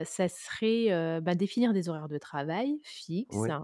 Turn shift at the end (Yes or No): No